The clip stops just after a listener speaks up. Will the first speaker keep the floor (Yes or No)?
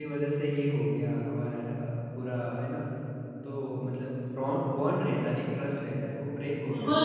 No